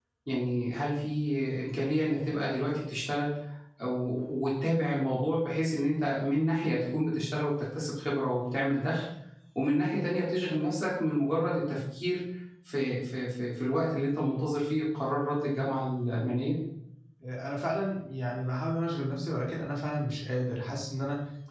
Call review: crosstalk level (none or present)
none